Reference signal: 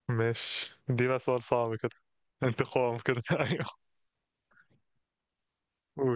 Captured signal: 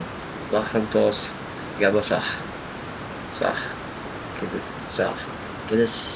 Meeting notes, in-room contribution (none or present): present